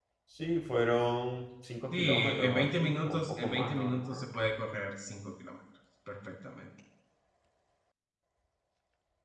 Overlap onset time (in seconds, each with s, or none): 1.9 s